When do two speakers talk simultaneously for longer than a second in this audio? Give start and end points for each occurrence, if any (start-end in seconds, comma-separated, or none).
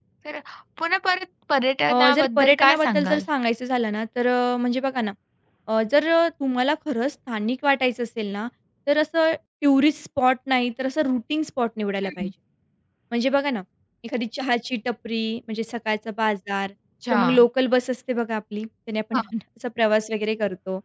1.9-3.2